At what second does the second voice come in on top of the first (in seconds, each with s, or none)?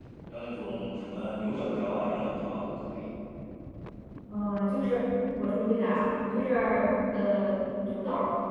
none